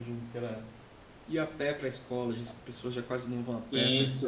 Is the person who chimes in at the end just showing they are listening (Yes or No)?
No